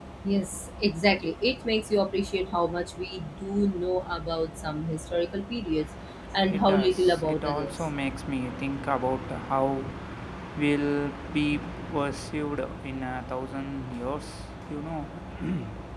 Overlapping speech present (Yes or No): Yes